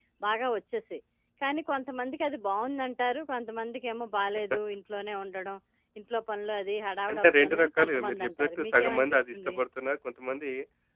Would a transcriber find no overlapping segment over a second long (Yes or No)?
No